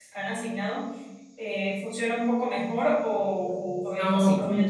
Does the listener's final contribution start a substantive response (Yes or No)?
Yes